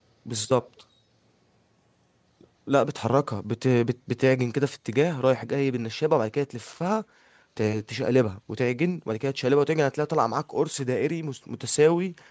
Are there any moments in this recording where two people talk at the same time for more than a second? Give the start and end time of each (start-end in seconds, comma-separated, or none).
none